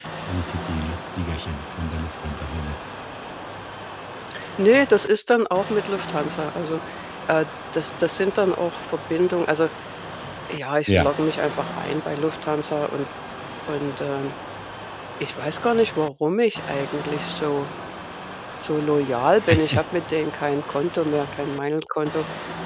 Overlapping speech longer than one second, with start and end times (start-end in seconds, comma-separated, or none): none